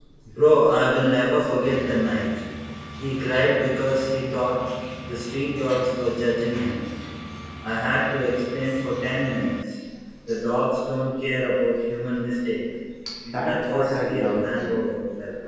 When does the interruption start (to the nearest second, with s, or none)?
13 s